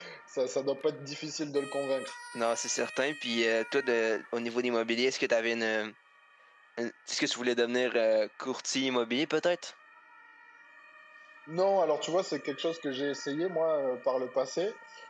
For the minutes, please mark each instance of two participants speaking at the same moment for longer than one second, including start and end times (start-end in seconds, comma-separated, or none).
none